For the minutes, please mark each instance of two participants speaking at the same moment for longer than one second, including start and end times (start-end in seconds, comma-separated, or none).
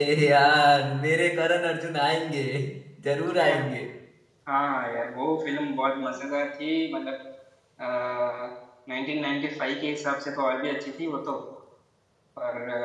none